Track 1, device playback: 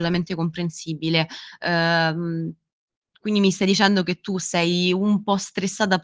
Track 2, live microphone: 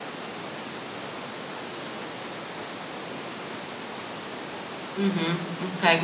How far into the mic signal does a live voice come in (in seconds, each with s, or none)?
5.0 s